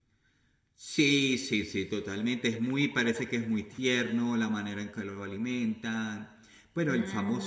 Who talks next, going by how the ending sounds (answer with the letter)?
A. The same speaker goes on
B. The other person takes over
A